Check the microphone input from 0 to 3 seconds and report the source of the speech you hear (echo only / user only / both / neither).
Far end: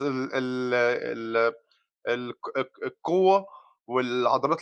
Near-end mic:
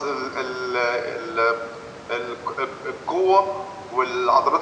echo only